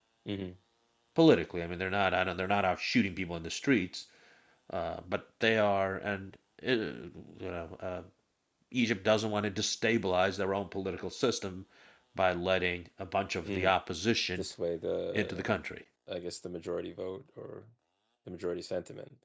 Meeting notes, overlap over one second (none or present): none